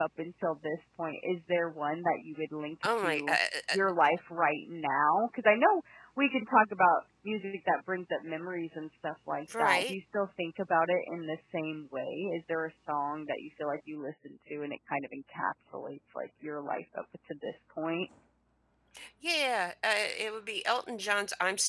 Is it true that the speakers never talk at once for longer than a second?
Yes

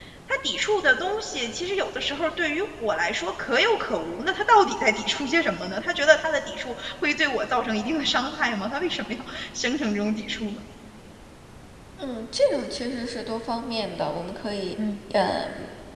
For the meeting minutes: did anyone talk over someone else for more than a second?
No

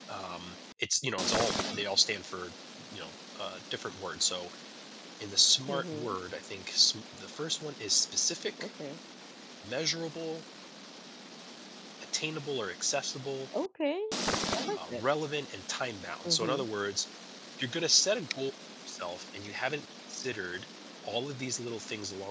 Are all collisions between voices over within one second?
Yes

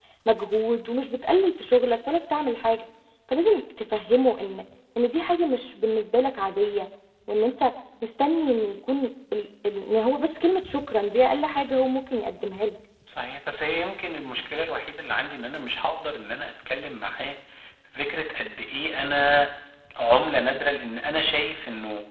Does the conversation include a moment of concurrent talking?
No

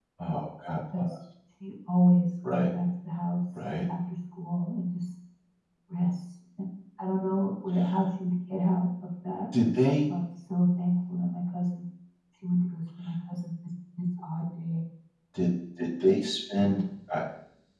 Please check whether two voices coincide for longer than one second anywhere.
No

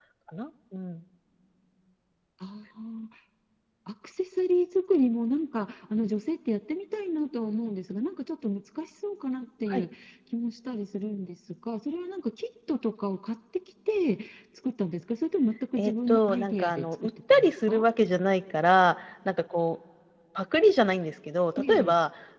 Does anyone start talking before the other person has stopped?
Yes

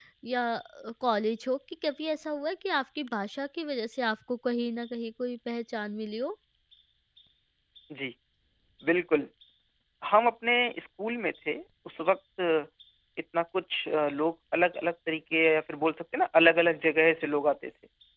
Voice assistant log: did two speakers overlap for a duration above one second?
No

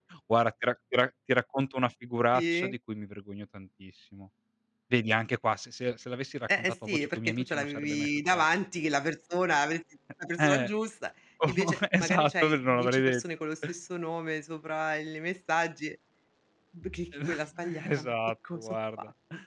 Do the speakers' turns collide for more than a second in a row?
Yes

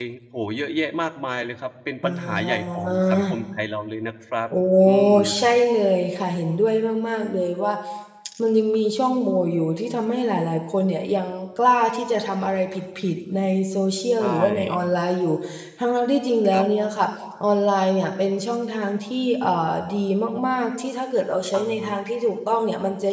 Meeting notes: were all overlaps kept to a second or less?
No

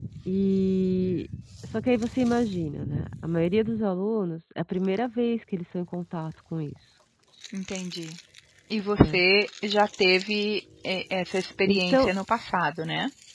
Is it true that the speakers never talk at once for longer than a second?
Yes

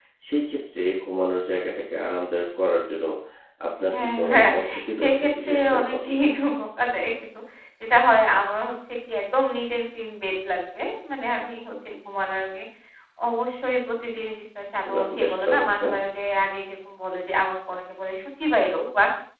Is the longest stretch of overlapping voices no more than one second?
No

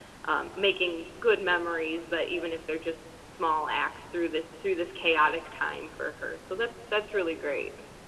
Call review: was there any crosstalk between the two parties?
No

